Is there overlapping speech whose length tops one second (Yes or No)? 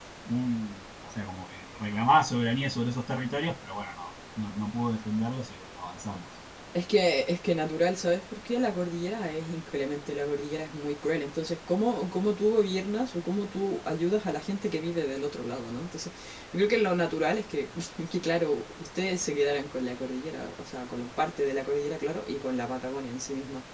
No